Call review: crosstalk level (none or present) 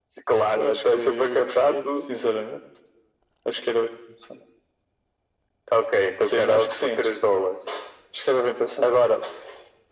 present